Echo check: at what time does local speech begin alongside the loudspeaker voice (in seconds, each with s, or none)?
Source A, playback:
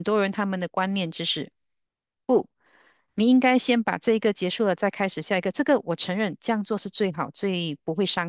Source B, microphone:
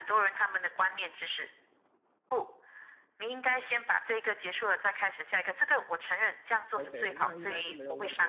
6.7 s